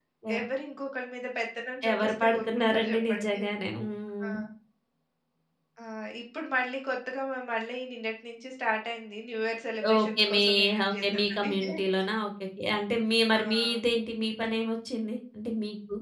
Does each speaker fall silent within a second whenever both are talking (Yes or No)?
No